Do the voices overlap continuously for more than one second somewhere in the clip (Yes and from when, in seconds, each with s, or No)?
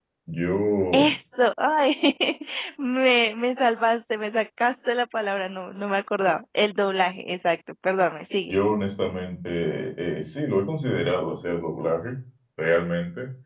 No